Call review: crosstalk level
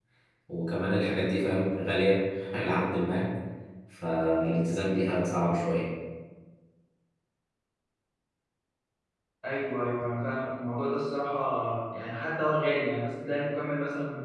none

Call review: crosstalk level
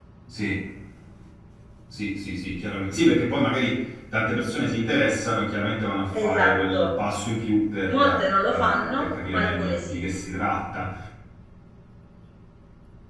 present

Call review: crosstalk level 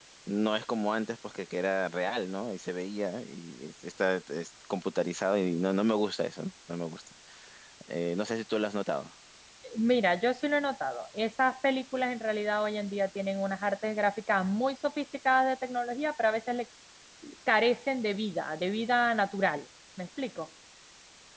none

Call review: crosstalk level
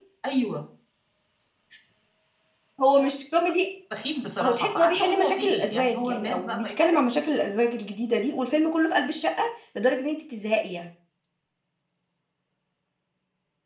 present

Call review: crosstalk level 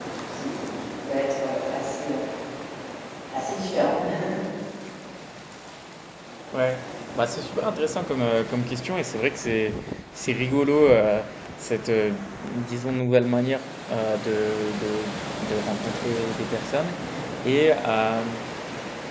none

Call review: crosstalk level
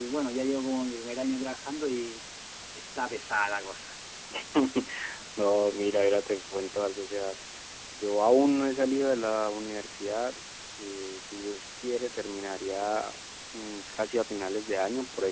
none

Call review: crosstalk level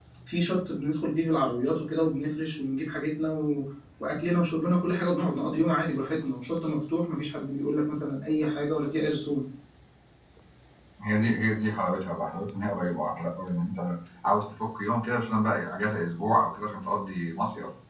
none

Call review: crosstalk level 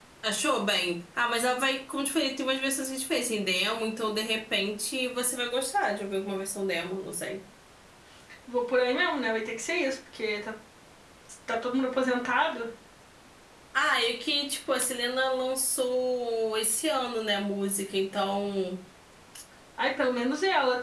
none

